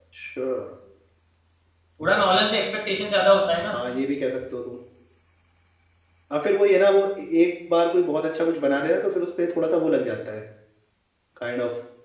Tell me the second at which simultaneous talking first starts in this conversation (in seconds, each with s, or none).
none